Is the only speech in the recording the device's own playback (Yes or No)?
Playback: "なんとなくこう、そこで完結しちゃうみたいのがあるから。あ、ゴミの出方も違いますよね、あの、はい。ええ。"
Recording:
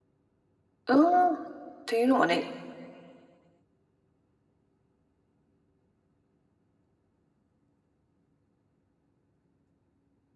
No